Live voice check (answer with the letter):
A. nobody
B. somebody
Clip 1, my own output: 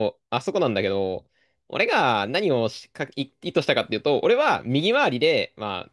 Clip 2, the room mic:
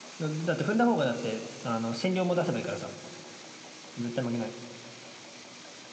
B